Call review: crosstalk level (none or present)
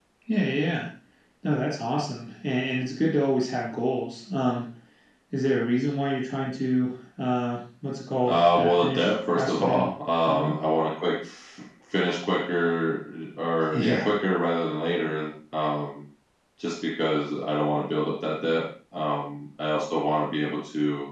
present